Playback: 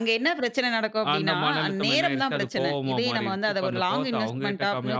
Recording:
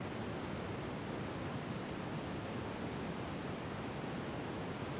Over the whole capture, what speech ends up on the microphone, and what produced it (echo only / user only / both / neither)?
neither